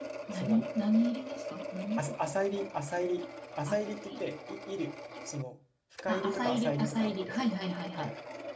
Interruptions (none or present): present